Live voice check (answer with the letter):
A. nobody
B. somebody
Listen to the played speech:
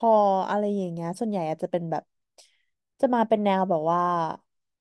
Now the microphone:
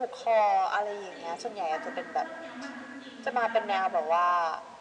B